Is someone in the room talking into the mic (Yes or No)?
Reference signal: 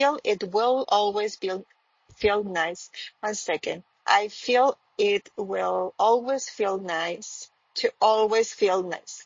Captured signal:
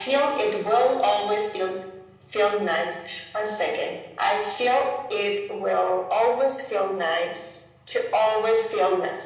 No